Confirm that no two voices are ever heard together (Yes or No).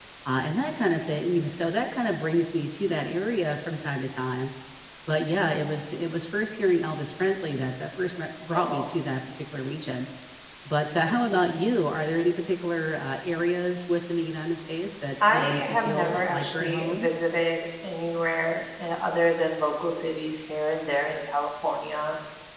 No